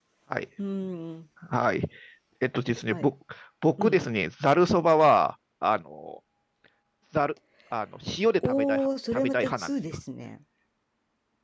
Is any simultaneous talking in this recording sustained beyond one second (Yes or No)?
Yes